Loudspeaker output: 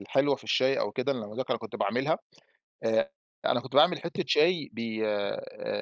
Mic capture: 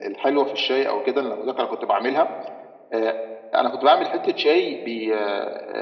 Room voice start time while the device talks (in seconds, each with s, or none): none